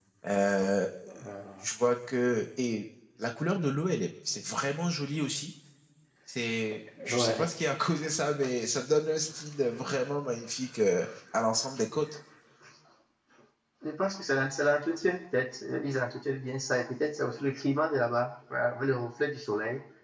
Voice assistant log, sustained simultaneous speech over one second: none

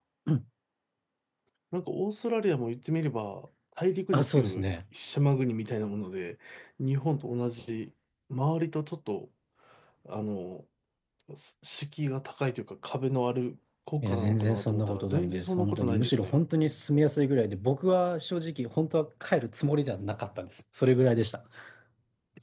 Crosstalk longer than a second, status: present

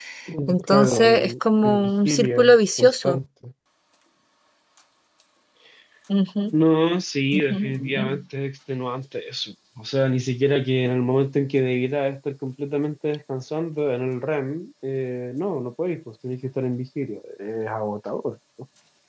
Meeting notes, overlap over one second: present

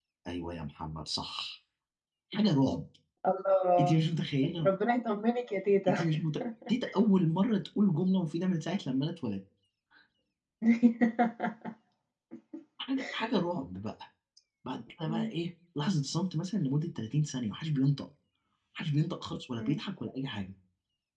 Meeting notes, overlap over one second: none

